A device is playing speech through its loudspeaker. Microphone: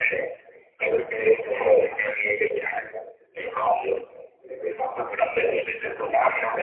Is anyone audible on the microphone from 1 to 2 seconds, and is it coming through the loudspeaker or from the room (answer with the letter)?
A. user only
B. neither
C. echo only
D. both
C